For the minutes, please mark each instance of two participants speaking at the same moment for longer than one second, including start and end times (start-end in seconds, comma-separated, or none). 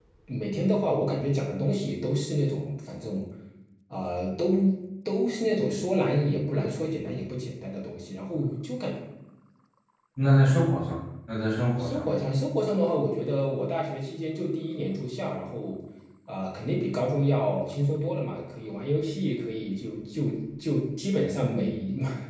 none